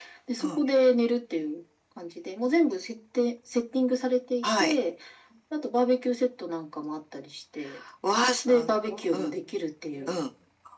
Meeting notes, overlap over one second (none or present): none